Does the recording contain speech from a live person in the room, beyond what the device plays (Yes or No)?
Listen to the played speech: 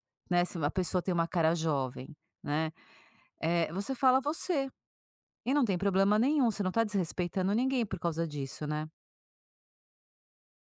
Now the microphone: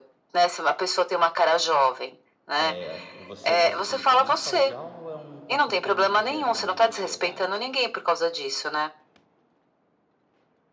Yes